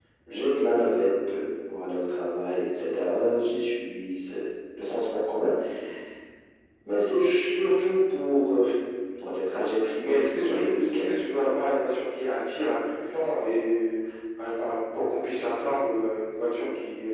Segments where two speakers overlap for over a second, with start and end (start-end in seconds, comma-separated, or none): 10.0-11.3